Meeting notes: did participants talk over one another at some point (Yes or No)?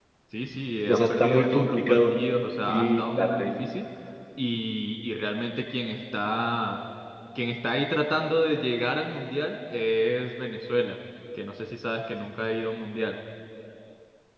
Yes